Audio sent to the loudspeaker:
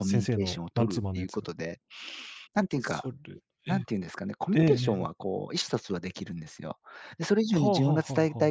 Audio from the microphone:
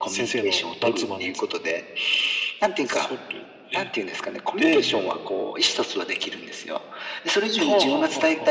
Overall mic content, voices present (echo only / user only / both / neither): echo only